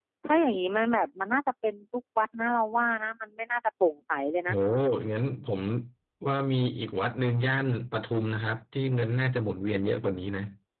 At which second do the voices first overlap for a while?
none

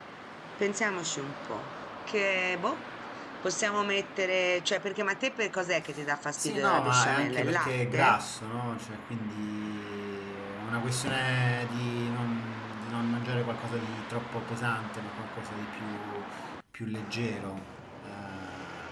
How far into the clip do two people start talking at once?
6.4 s

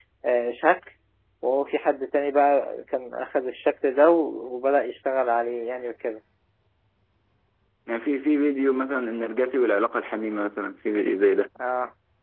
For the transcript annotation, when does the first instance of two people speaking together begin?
none

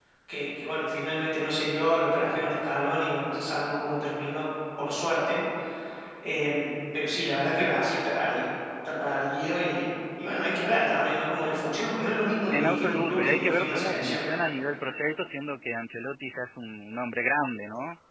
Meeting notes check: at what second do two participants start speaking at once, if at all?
12.5 s

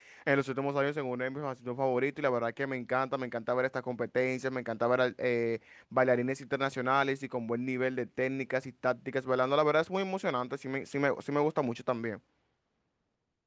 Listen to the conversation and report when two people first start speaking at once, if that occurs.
none

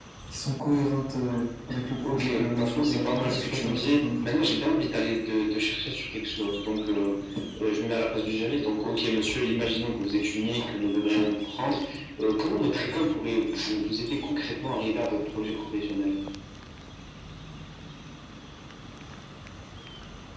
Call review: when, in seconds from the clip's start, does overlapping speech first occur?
2.0 s

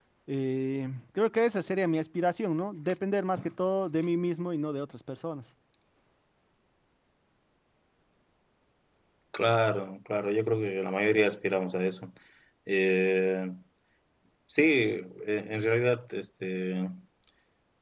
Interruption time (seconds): none

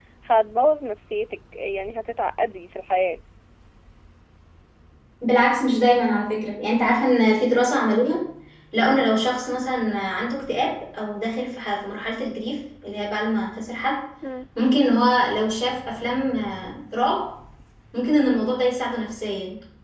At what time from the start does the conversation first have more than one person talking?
none

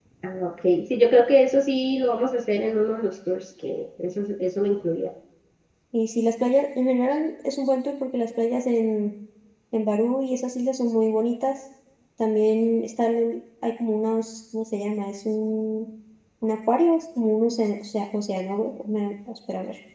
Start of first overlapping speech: none

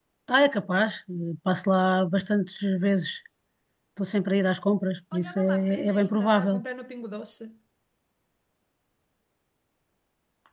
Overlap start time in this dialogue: 5.1 s

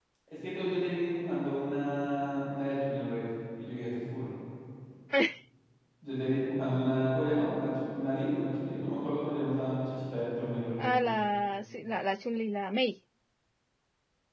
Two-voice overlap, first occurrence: none

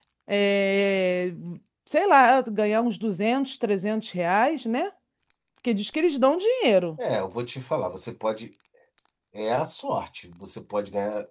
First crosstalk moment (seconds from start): none

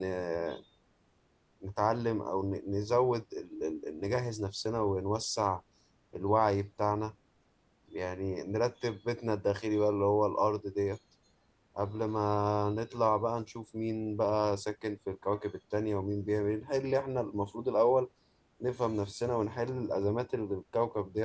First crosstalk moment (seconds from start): none

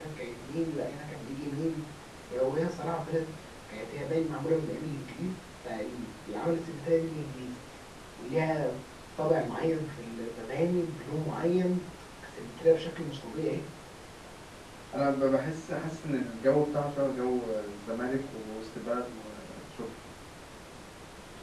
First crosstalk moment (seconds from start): none

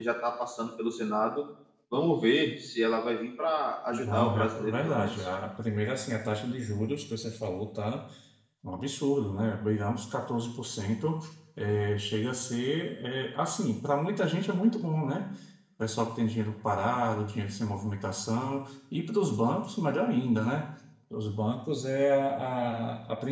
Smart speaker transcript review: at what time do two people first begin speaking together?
3.9 s

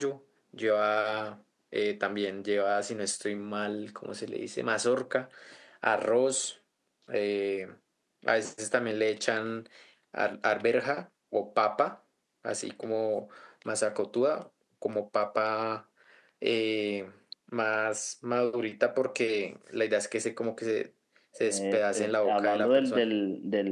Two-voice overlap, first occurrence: 21.4 s

